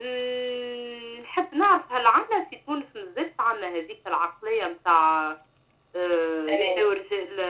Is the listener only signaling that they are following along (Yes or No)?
Yes